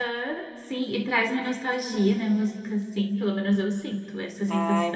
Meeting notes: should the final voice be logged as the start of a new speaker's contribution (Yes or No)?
Yes